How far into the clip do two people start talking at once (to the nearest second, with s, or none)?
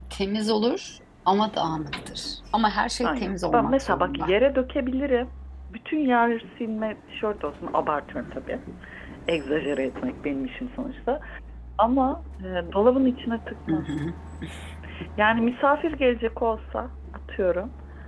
3 s